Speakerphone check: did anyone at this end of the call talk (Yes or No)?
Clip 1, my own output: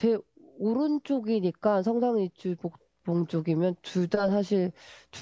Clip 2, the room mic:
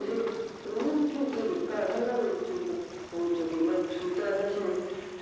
No